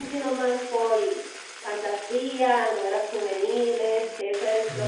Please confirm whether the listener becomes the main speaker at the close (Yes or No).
No